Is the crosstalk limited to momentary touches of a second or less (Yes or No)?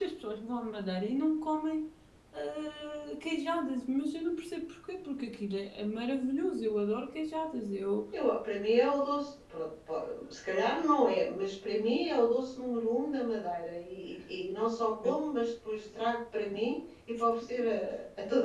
Yes